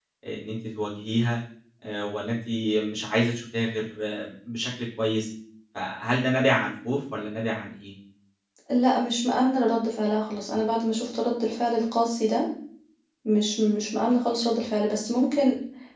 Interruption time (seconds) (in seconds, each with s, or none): none